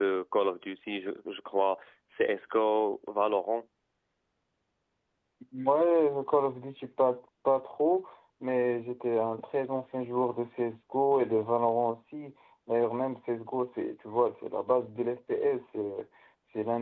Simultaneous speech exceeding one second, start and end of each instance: none

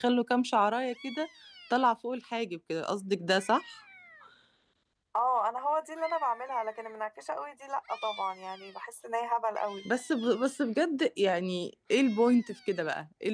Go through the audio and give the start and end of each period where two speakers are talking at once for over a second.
none

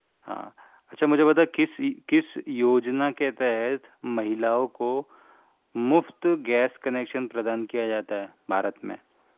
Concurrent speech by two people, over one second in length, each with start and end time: none

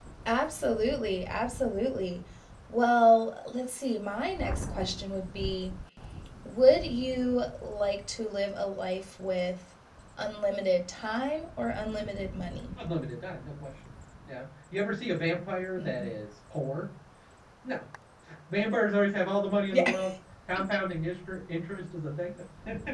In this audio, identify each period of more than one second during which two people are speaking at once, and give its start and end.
none

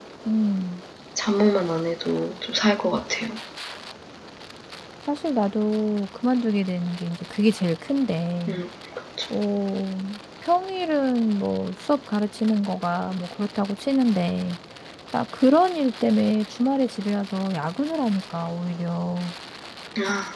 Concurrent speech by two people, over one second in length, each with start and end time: none

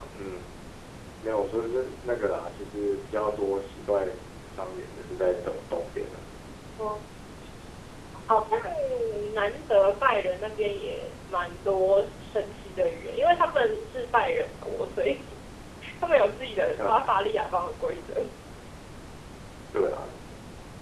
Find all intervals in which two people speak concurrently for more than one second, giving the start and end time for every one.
none

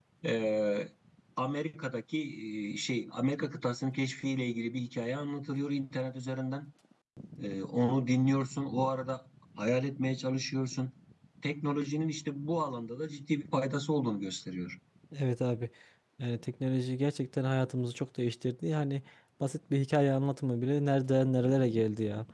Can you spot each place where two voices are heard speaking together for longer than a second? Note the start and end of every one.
none

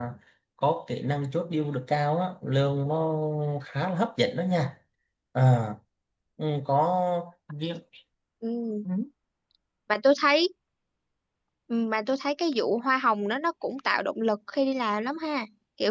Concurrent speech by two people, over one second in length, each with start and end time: none

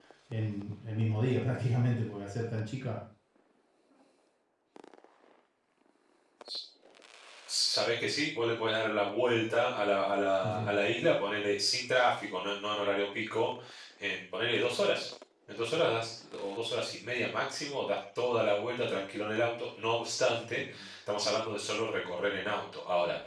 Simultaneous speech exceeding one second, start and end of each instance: none

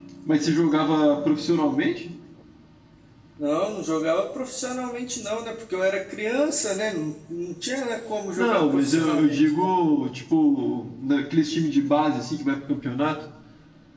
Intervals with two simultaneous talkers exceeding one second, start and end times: 8.4-9.7

